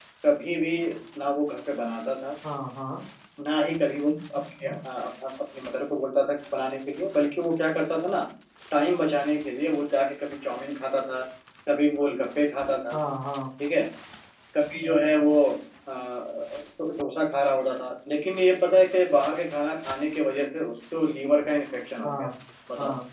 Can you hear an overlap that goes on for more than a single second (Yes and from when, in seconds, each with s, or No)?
No